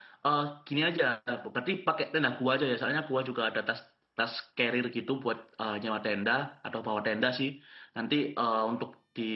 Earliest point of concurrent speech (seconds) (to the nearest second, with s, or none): none